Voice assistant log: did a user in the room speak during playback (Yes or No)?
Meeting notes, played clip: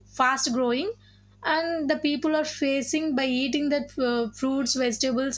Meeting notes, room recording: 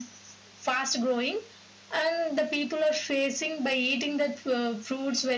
No